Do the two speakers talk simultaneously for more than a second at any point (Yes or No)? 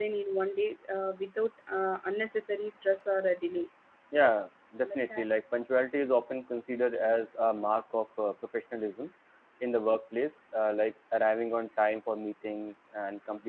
No